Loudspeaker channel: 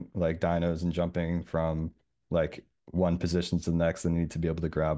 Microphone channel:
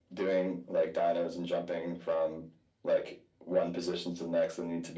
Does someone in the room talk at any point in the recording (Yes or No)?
No